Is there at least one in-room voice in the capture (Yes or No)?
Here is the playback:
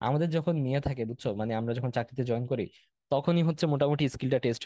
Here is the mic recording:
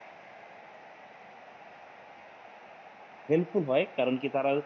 Yes